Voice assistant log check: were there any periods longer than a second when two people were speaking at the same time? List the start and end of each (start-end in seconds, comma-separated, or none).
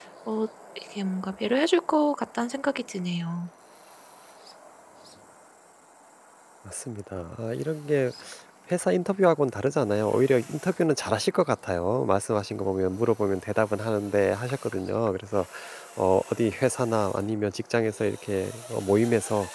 none